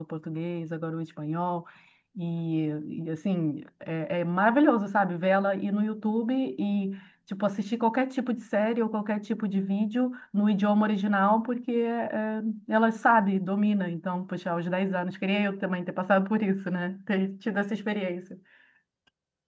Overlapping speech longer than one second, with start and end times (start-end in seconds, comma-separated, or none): none